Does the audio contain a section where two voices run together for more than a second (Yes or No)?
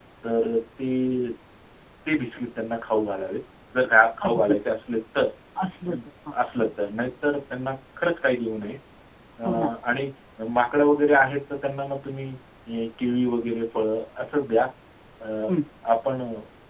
No